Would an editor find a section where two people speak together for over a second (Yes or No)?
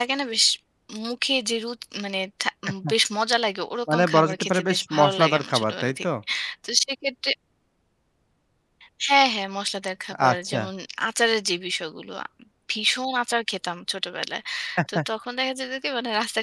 Yes